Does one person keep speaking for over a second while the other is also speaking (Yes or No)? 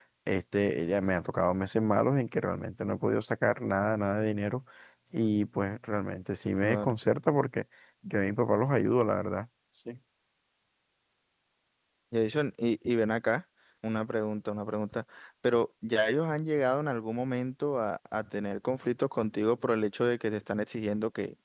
No